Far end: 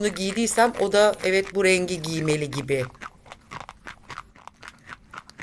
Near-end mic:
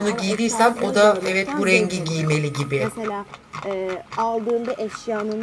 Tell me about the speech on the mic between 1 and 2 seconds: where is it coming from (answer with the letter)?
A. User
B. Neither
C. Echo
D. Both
D